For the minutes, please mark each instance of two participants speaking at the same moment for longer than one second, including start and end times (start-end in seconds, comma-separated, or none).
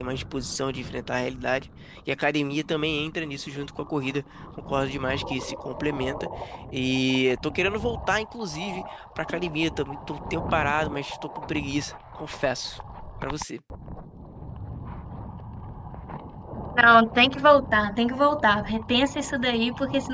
none